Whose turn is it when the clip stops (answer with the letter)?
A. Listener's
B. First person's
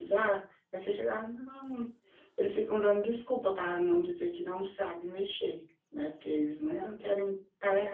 B